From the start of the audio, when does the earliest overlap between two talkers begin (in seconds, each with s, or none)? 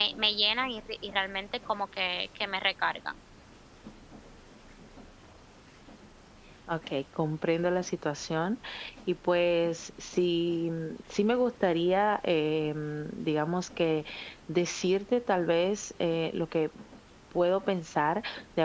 none